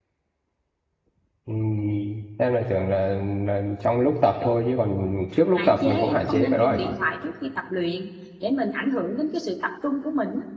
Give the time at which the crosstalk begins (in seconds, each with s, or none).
5.6 s